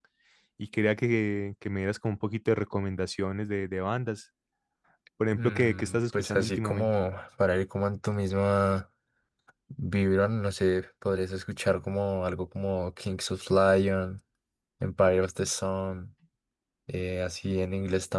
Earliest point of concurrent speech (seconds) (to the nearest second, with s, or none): 5 s